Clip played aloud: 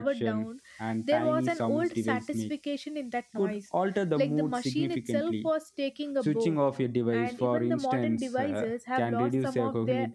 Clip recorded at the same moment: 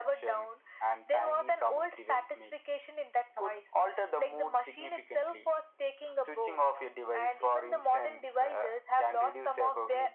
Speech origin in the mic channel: echo only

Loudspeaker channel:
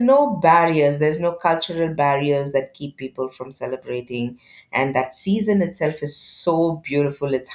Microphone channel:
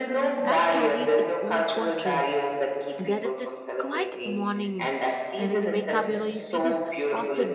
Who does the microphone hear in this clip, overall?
both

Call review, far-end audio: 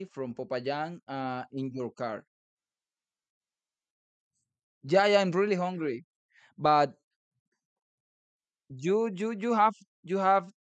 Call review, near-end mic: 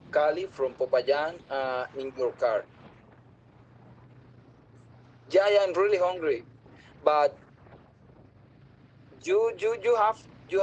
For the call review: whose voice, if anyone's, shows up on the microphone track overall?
echo only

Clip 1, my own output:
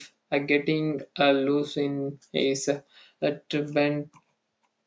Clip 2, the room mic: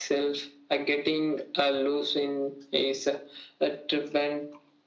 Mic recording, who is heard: echo only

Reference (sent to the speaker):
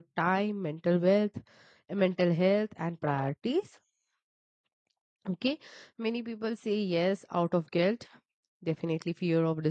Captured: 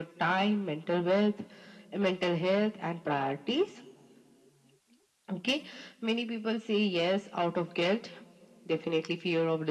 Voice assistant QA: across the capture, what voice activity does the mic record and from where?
echo only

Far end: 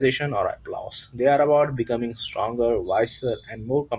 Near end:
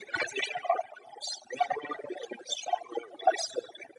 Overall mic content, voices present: echo only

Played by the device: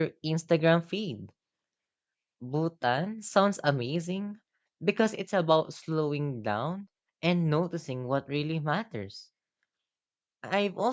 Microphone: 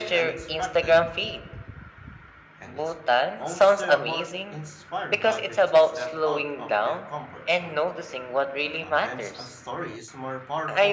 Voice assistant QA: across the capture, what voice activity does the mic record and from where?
both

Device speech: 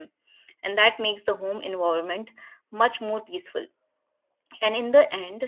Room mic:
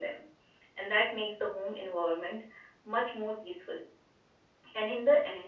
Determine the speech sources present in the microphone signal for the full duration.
echo only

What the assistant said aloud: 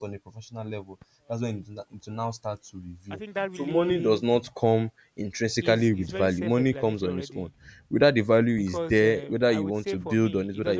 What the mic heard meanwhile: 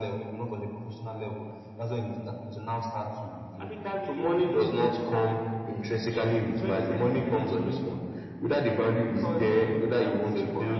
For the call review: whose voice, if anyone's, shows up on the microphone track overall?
echo only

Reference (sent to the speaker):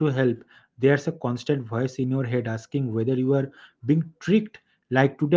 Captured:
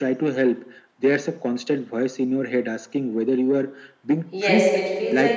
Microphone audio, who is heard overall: both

